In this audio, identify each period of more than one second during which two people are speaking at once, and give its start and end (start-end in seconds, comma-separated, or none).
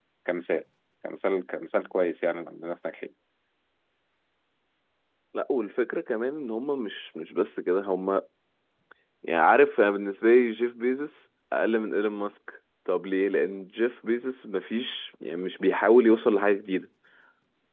none